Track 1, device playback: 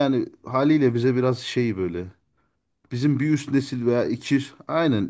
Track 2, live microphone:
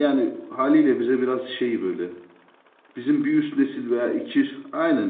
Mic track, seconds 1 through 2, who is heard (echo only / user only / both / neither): echo only